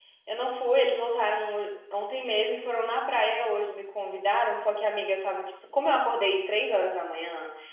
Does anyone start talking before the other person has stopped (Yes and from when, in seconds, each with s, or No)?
No